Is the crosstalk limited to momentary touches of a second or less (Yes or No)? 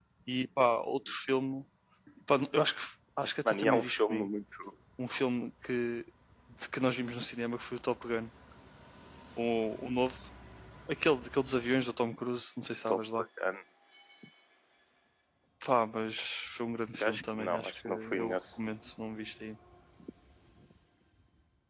No